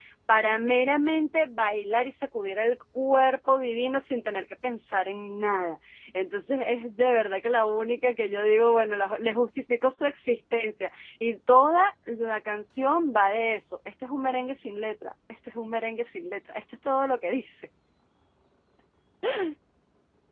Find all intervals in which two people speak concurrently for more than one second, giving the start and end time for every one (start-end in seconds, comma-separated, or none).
none